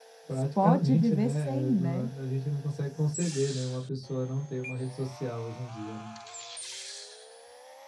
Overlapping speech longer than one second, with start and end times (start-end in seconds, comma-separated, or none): 0.6-2.0